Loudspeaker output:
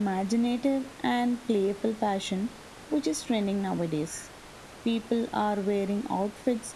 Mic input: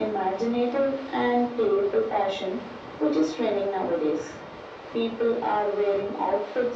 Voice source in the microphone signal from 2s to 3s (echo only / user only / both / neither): echo only